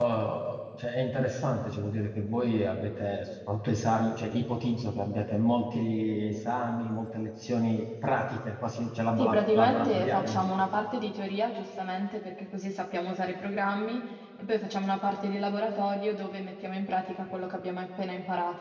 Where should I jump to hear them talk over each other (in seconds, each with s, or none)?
9.2 s